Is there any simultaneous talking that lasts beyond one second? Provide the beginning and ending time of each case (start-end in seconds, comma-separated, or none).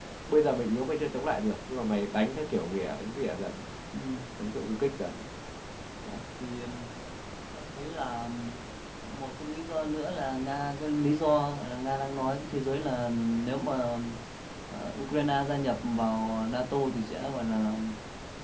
none